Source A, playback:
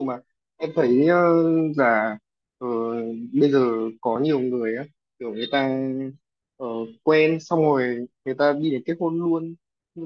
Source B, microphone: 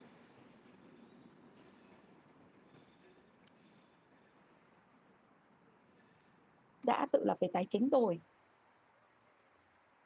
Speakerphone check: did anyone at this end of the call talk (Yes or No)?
Yes